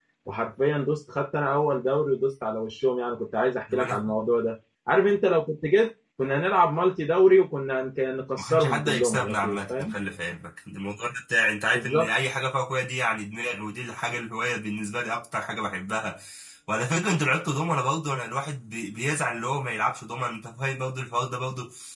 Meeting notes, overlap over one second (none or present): present